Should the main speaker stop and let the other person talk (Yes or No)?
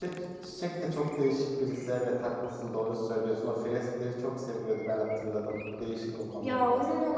Yes